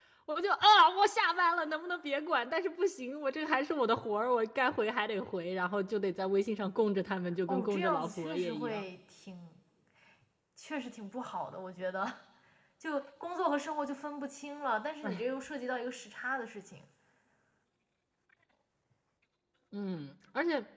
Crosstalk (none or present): present